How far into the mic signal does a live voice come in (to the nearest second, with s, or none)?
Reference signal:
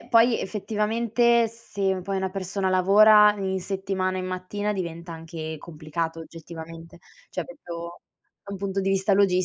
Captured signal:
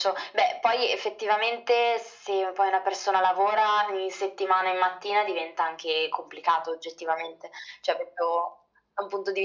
none